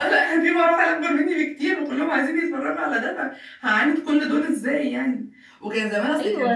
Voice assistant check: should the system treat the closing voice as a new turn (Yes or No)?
No